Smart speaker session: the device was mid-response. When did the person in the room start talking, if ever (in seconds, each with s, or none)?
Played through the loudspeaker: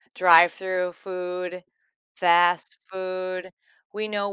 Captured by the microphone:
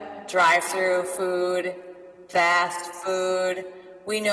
none